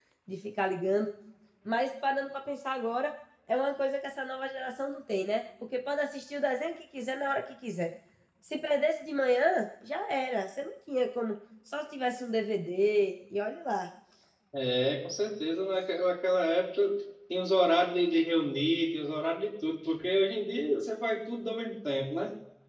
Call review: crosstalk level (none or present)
none